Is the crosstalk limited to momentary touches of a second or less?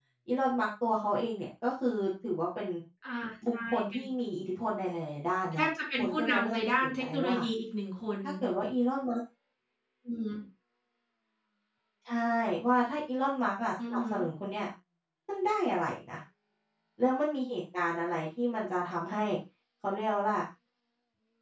No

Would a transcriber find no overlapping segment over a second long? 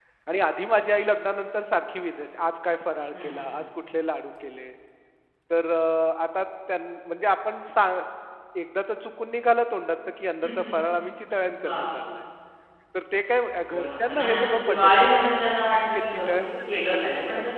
No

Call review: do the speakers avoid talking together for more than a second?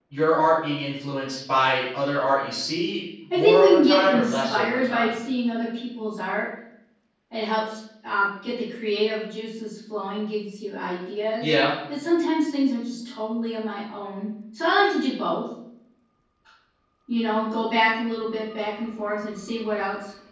No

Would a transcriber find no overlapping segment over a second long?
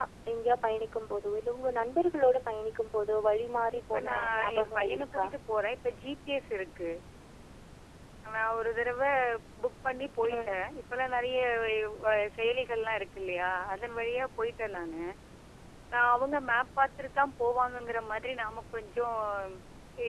No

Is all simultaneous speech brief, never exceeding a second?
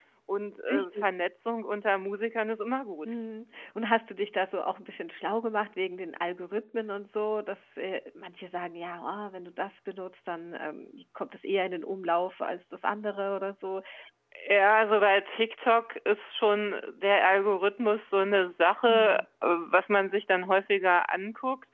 Yes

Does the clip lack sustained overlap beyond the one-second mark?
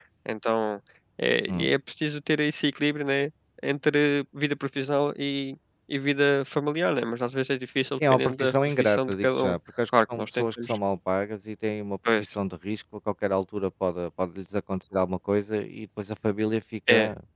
No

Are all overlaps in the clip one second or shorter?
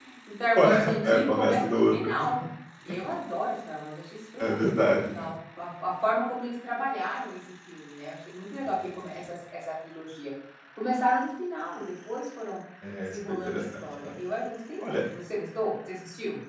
No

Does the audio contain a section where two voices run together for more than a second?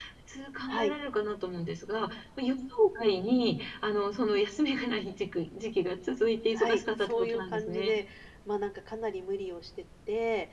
Yes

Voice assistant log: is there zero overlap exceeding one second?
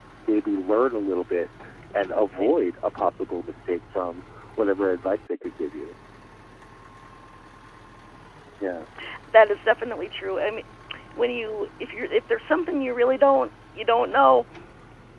Yes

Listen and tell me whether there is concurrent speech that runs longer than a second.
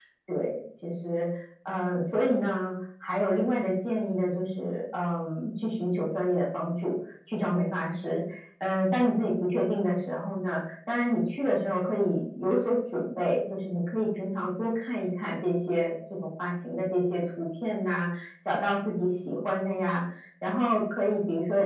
No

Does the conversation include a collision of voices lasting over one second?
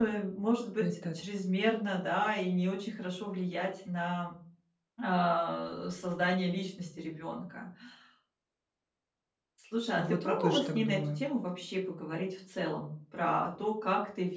Yes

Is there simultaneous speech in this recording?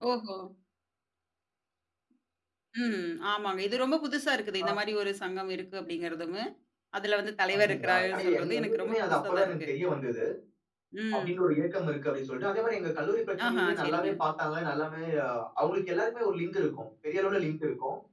Yes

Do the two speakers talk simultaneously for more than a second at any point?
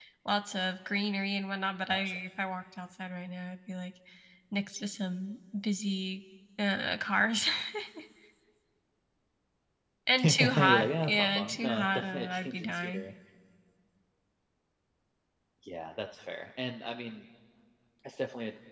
Yes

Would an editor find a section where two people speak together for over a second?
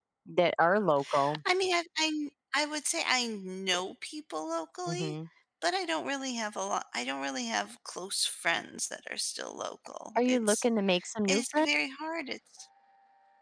No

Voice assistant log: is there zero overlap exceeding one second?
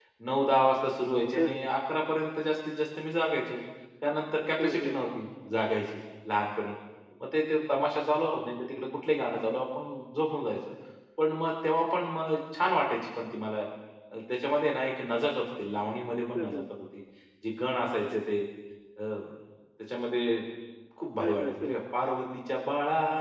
Yes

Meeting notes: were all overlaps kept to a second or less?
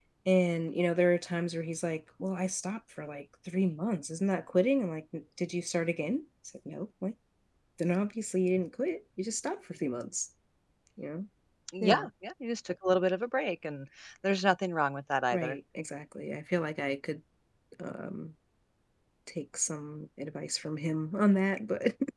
Yes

